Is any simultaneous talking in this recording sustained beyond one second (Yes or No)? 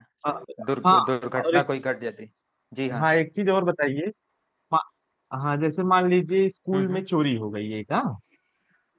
No